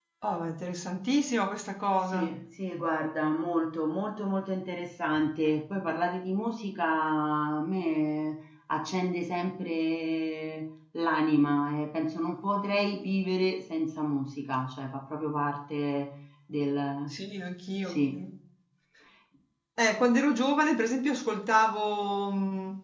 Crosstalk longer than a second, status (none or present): none